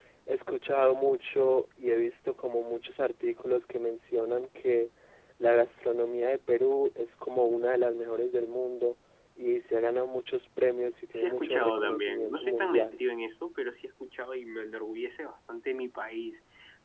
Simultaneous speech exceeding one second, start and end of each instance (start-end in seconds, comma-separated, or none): 11.1-13.0